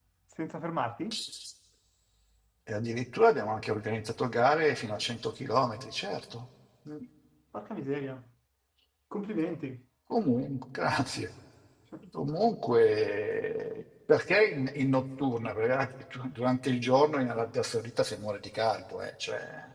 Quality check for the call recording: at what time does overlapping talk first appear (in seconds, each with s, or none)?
none